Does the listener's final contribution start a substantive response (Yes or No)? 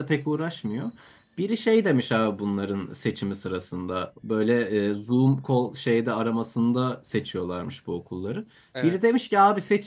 No